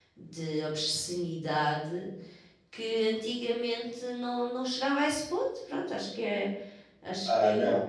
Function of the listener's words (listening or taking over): taking over